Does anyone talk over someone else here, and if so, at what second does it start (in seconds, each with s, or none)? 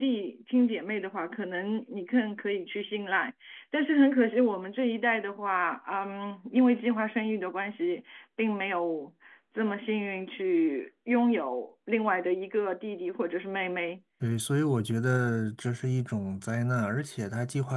none